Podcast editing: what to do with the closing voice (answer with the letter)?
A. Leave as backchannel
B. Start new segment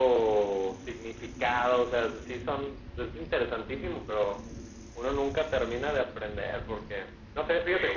A